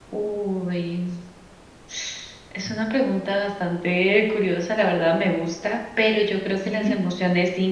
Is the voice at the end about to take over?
No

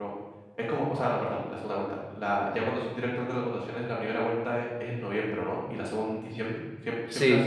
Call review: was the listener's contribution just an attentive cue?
No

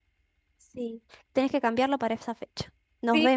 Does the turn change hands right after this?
Yes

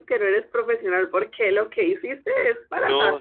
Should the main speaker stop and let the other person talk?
Yes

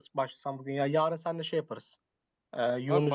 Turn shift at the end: Yes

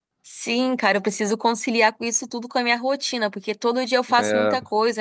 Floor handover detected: No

